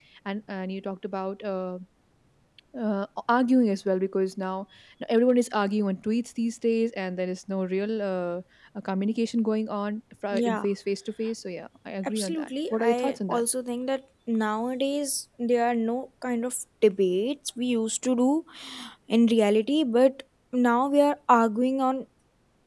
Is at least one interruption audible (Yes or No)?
Yes